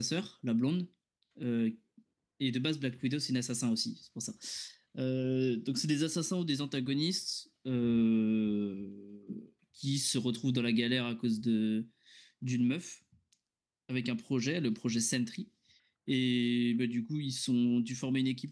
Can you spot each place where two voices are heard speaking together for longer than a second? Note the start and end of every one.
none

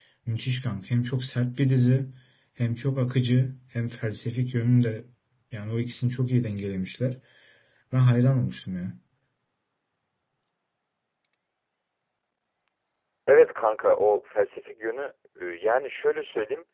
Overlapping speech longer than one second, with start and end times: none

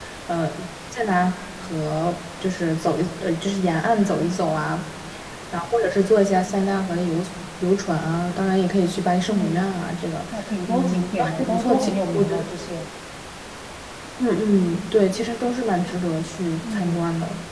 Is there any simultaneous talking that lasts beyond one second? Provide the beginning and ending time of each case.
10.7-12.4

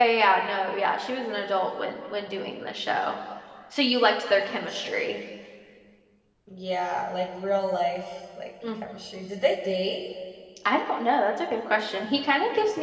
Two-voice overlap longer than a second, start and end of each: none

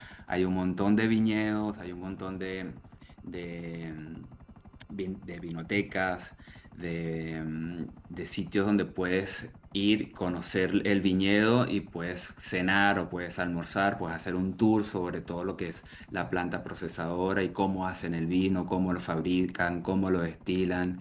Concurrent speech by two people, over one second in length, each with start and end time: none

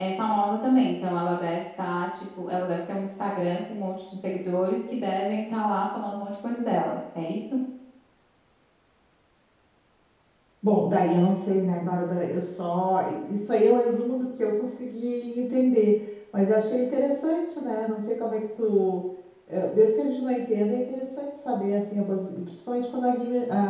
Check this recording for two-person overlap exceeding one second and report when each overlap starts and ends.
none

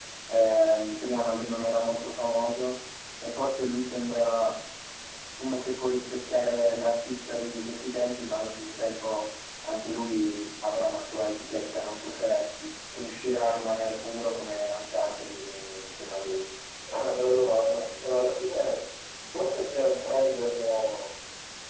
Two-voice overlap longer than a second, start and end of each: none

